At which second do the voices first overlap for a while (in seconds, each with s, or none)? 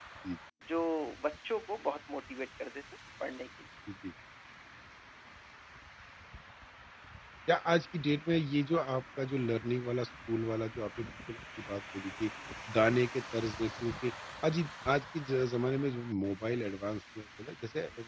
none